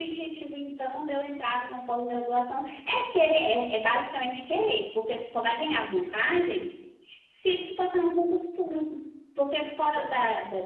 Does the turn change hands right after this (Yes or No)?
No